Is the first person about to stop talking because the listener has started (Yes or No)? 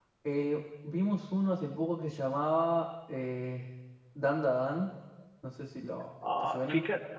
Yes